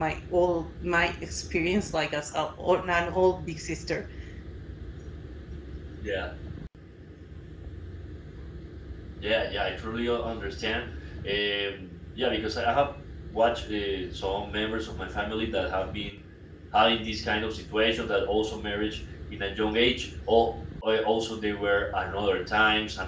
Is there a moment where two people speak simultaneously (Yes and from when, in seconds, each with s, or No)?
No